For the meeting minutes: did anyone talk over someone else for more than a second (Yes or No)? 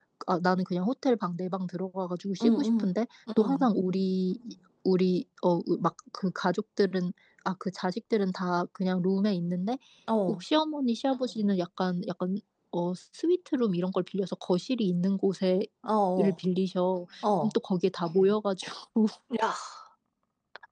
No